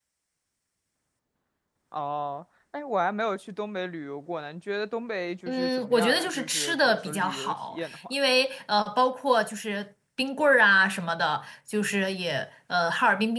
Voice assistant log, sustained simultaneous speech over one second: present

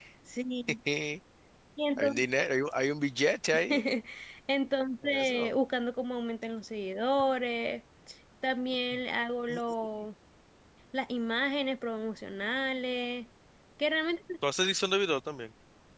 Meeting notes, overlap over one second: none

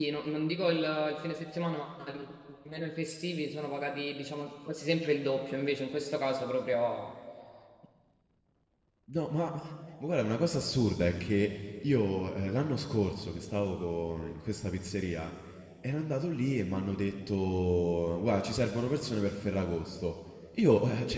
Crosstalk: none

